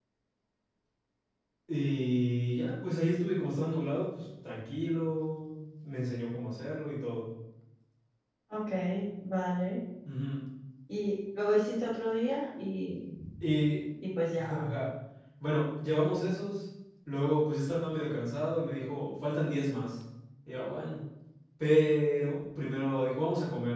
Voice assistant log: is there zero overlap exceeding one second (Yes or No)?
Yes